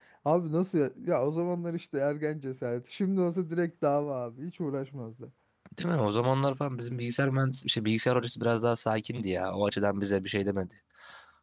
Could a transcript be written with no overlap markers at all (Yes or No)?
Yes